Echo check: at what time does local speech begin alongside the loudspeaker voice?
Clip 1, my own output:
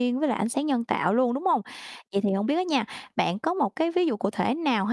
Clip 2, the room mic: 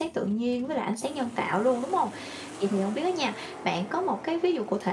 none

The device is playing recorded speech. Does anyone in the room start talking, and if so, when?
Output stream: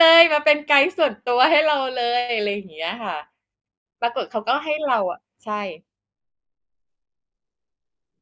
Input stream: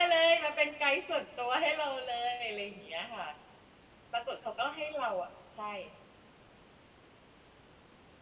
none

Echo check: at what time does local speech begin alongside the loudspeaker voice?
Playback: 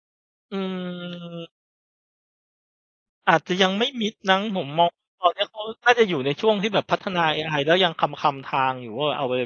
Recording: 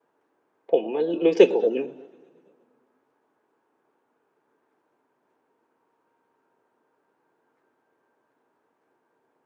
0.7 s

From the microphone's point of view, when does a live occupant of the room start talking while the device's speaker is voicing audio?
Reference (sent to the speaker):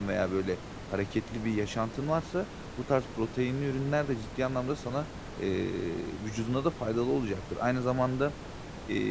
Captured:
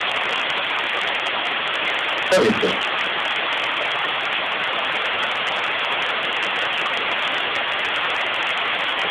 2.3 s

